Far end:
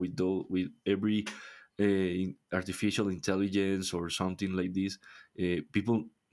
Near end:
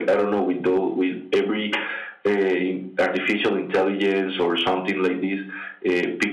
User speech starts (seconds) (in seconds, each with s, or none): none